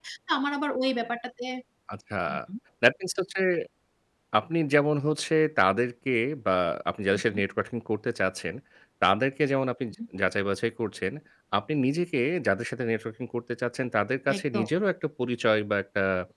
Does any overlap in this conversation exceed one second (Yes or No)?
No